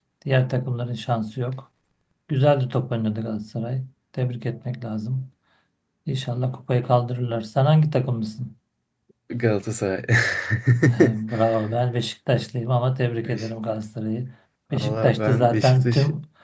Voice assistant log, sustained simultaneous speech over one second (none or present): present